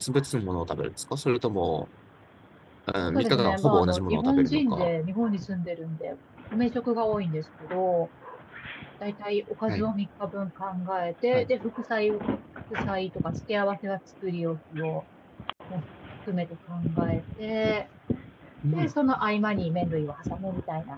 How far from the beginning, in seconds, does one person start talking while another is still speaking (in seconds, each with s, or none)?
3.0 s